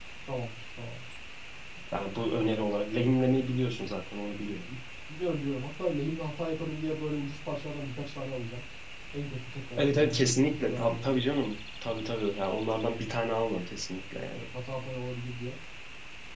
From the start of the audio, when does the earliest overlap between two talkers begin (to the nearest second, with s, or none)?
10 s